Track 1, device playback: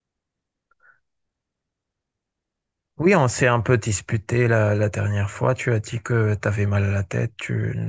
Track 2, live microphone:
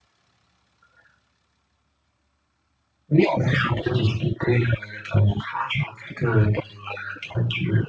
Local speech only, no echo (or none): none